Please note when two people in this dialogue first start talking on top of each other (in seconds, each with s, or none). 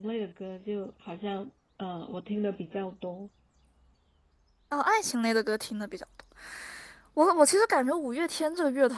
none